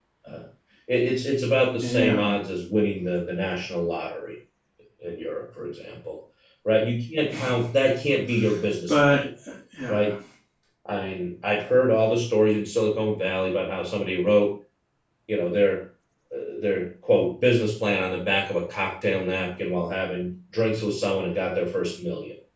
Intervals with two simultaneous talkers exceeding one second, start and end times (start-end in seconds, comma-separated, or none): none